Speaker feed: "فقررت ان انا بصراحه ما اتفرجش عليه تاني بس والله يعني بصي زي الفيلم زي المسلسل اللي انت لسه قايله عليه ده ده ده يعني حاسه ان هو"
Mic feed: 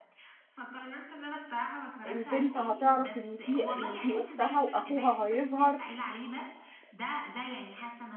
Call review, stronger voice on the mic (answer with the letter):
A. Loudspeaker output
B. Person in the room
B